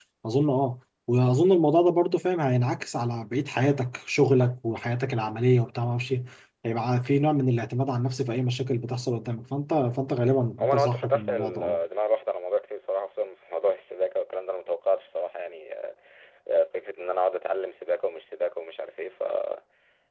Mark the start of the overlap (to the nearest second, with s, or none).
11 s